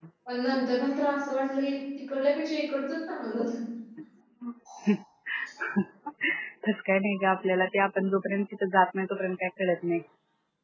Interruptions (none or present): none